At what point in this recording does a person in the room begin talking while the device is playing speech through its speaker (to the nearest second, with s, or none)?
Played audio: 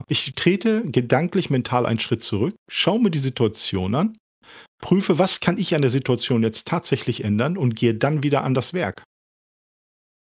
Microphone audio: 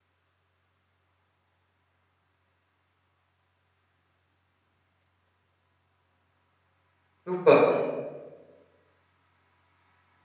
7 s